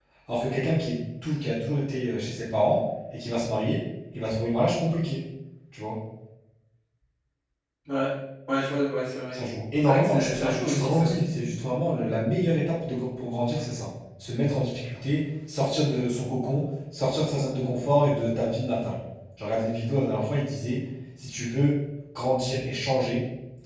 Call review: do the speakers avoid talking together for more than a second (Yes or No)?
No